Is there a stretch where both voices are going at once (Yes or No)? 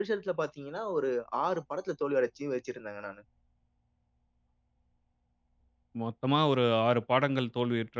No